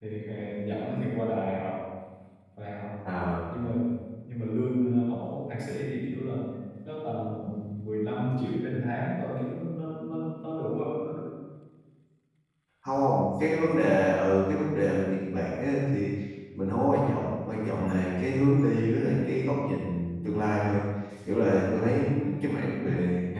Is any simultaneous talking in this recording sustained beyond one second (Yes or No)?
No